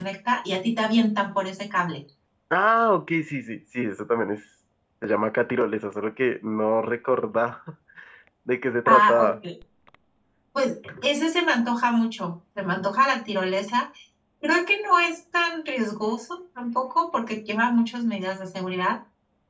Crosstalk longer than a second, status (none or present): none